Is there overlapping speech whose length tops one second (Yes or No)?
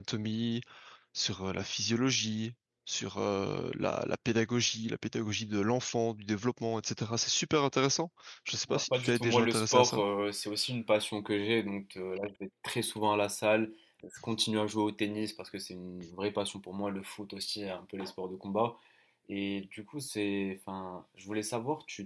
Yes